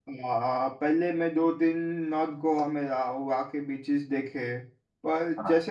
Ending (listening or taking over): listening